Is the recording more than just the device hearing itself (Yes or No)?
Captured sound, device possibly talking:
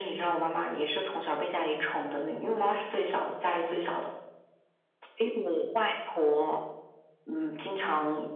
No